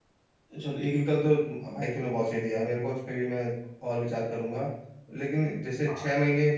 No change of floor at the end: Yes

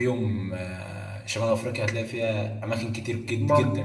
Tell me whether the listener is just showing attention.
Yes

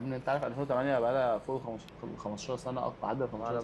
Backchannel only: No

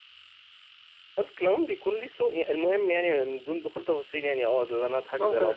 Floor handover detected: No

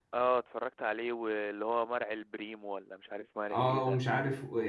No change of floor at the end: No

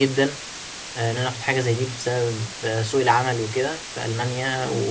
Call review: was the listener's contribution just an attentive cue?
Yes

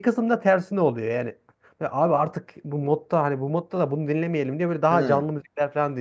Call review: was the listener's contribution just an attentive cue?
Yes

